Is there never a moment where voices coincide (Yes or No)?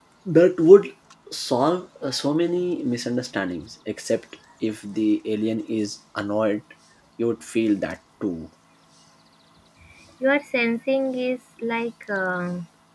Yes